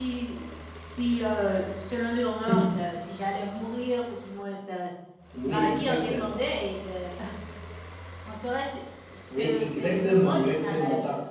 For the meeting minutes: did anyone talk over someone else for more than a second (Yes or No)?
Yes